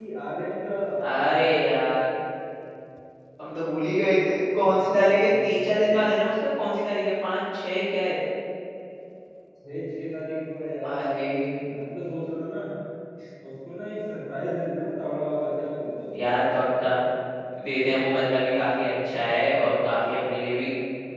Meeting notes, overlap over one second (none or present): present